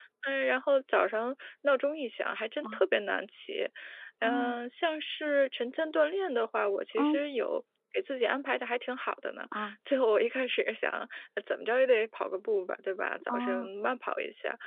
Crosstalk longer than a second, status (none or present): none